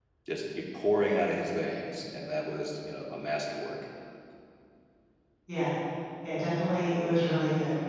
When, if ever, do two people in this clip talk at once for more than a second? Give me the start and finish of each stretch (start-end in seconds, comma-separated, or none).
none